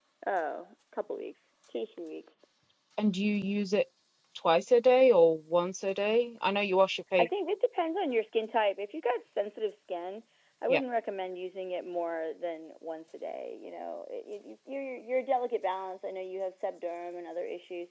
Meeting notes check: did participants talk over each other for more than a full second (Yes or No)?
No